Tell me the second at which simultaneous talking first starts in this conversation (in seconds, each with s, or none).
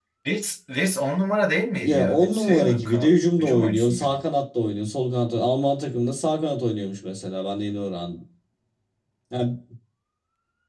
1.8 s